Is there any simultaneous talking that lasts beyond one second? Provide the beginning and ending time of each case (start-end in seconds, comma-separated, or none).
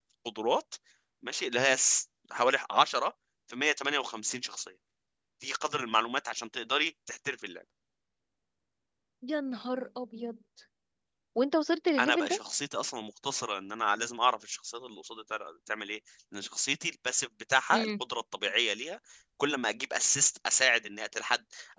none